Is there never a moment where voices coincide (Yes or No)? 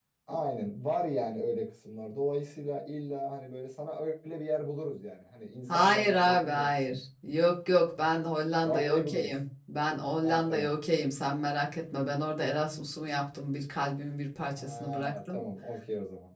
No